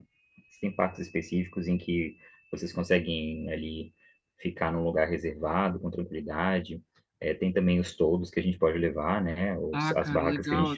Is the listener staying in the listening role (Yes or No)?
No